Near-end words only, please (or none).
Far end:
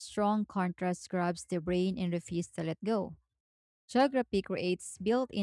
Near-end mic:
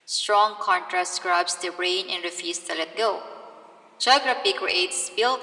none